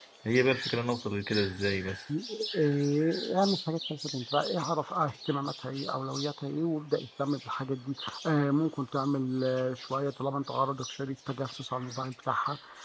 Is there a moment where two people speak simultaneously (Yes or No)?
No